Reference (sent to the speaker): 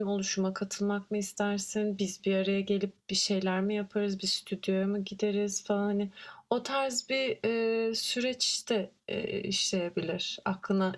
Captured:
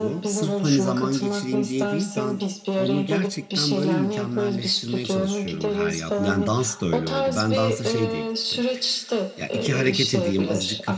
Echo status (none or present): present